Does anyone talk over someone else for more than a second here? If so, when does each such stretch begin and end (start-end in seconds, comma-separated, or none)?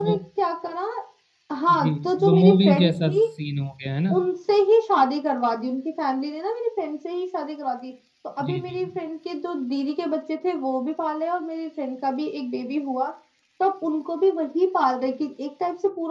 1.8-3.2